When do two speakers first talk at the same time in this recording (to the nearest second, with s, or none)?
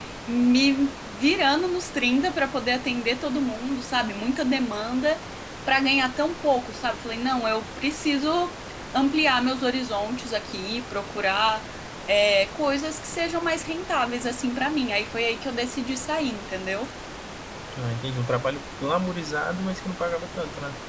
none